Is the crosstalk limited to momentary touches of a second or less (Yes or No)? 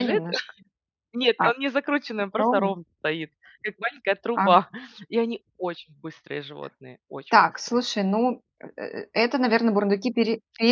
Yes